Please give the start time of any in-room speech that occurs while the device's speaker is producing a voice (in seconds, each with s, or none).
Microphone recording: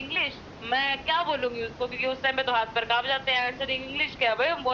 none